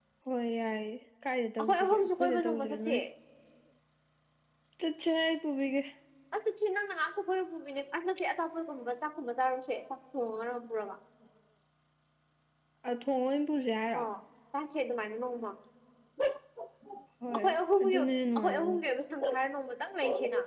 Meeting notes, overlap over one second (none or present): present